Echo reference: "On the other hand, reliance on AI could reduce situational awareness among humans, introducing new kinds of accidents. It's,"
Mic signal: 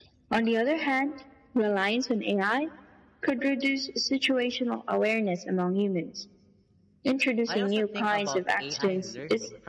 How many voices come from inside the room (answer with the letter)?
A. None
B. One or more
B